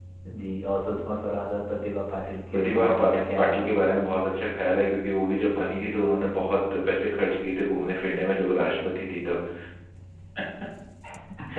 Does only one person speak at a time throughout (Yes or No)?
No